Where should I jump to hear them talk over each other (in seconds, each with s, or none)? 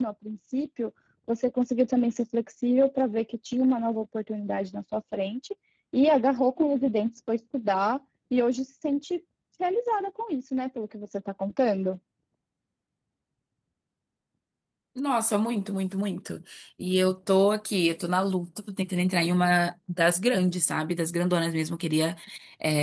none